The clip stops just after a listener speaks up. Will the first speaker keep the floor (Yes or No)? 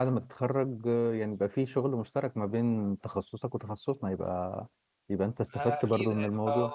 No